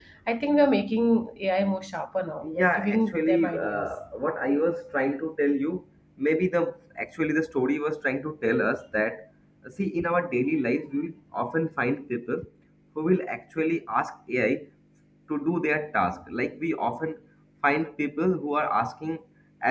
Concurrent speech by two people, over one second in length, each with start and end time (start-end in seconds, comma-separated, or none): 2.4-3.9